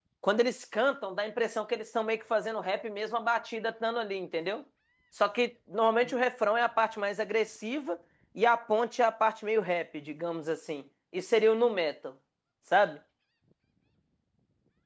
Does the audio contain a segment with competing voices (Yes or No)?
No